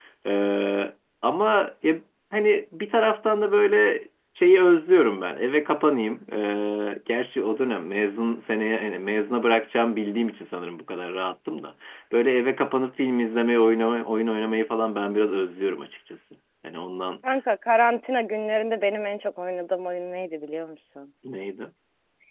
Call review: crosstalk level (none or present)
none